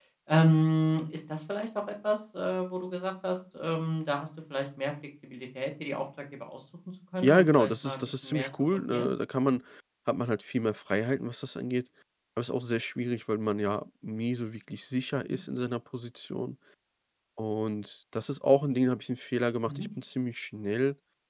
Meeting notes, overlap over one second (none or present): present